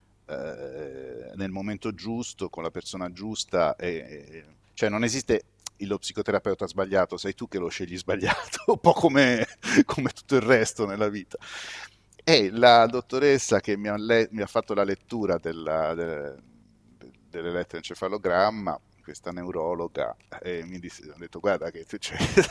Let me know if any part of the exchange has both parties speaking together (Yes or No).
No